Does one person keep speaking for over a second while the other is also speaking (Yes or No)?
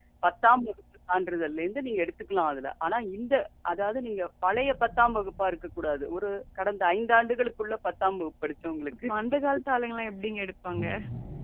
No